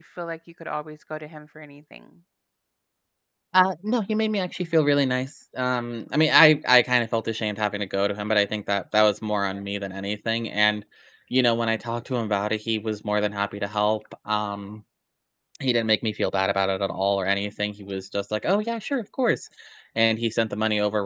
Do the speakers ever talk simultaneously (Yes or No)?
No